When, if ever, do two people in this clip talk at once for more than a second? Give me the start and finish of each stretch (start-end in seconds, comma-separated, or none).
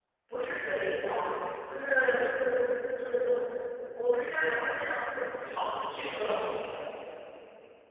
none